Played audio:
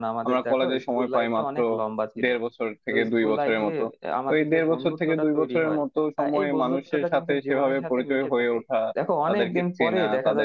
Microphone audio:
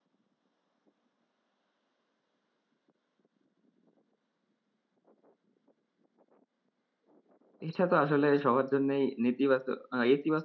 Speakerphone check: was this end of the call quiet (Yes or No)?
No